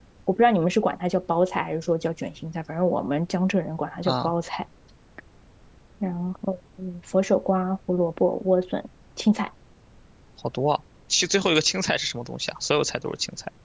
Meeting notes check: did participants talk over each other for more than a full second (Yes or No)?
No